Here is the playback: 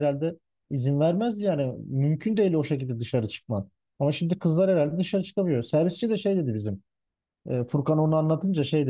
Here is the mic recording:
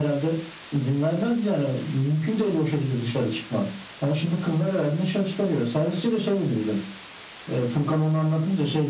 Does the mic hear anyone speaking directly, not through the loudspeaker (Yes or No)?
No